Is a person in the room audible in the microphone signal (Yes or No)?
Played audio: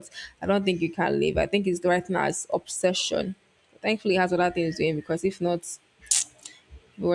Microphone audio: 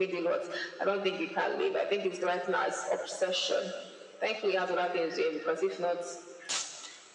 No